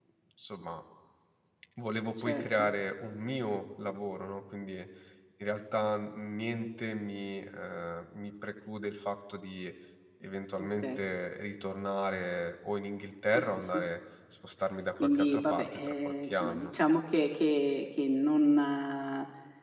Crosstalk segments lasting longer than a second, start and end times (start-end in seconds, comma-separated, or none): 15.2-16.7